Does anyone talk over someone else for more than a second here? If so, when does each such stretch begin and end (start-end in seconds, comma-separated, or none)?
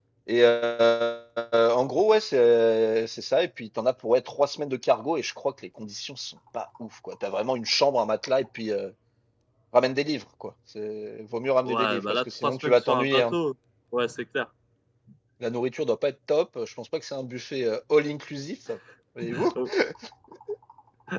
11.7-13.3